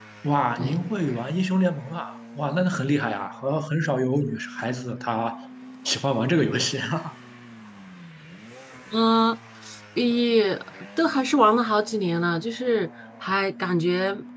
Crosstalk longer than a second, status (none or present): none